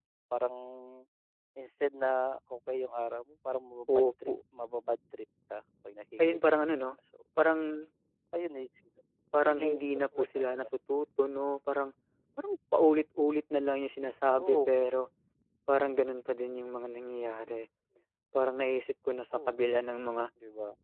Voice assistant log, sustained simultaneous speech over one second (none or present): present